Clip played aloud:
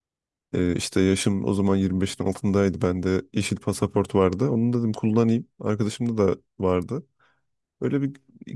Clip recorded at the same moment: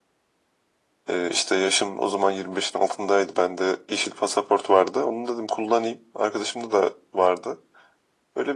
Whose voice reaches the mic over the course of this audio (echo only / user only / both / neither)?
echo only